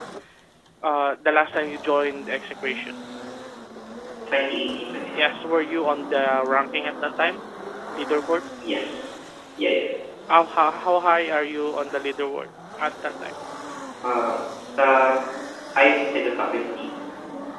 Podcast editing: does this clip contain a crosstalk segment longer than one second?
No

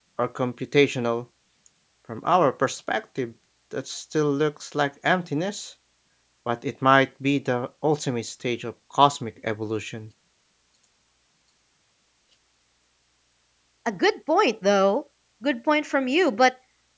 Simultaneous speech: No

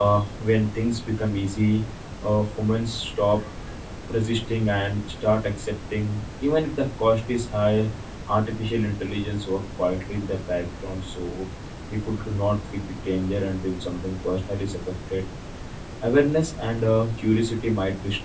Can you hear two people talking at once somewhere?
No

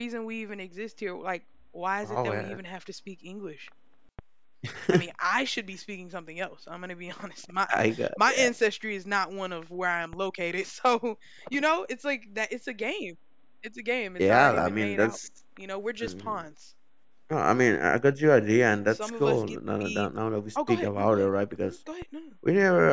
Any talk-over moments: Yes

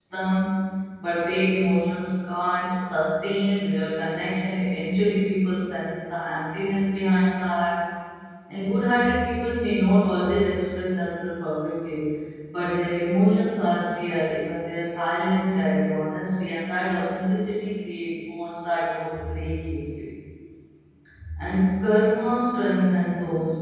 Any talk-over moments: No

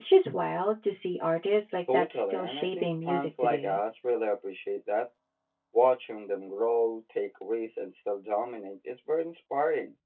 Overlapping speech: Yes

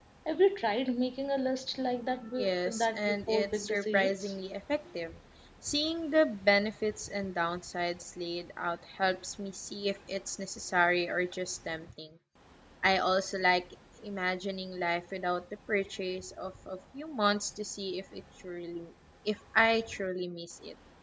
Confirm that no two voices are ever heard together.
No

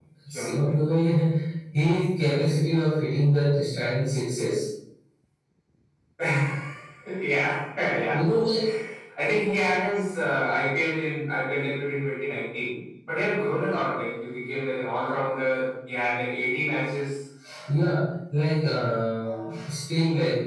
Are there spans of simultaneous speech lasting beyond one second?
No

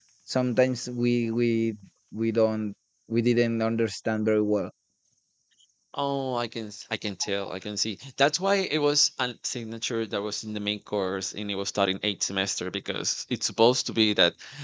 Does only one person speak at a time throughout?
Yes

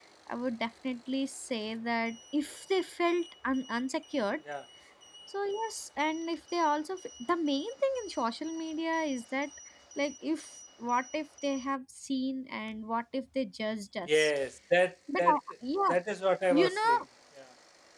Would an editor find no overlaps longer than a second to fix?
Yes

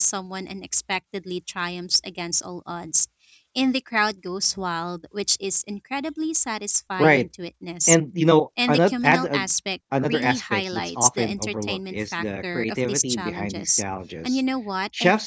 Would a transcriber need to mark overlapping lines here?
Yes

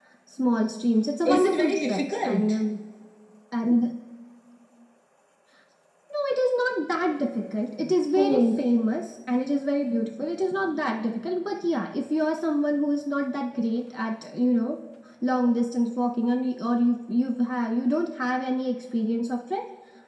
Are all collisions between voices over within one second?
No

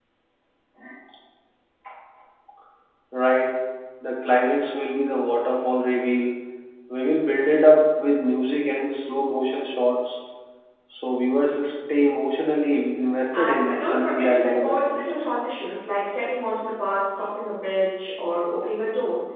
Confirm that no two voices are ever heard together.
No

